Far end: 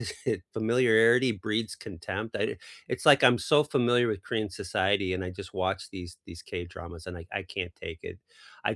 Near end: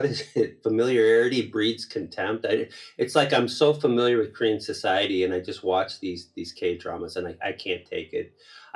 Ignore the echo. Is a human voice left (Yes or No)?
No